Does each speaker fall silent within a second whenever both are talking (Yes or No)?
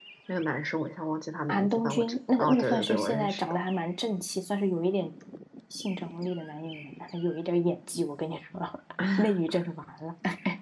No